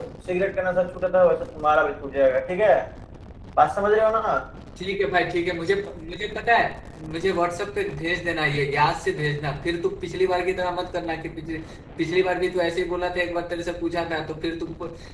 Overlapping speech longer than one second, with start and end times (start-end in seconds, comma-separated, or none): none